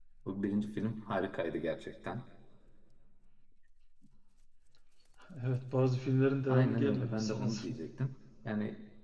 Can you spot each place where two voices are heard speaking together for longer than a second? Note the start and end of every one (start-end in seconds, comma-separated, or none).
6.5-7.8